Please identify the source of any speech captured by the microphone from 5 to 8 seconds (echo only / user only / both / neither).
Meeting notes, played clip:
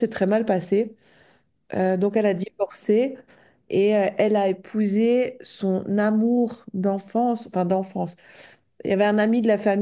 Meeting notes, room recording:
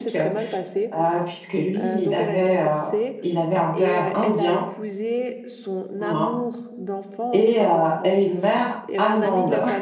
both